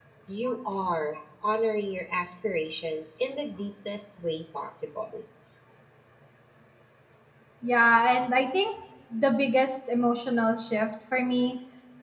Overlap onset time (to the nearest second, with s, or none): none